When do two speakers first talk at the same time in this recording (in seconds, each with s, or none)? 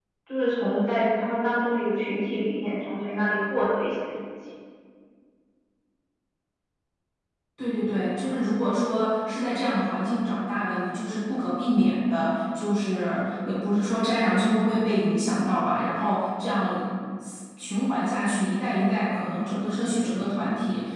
none